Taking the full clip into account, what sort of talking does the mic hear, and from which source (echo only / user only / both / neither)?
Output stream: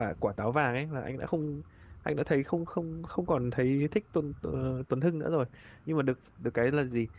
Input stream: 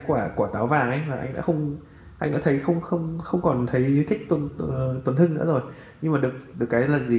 echo only